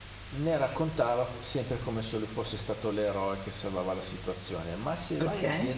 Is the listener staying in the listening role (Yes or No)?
Yes